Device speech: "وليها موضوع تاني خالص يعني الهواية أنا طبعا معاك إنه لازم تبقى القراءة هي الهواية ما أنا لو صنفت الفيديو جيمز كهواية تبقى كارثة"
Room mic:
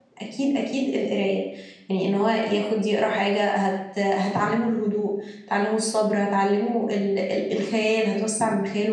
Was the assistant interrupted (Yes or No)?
Yes